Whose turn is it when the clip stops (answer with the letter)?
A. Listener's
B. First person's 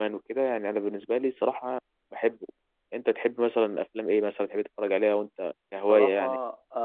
A